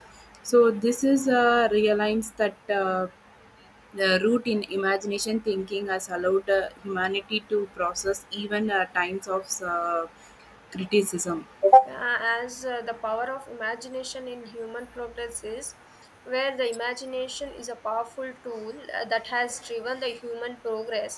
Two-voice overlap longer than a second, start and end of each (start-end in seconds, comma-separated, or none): none